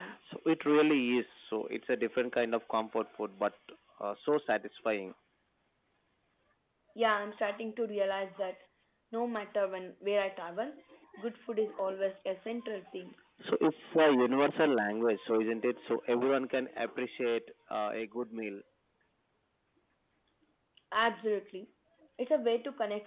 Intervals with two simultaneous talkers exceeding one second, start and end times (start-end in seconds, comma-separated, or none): none